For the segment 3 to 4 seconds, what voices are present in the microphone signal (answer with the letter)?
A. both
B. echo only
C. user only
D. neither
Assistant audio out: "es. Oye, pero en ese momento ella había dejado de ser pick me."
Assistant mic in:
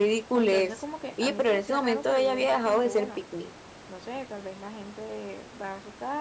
A